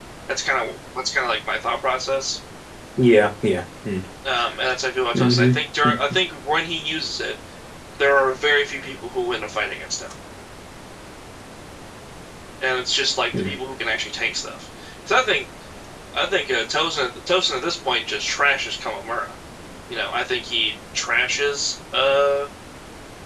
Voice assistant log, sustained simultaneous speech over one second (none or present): none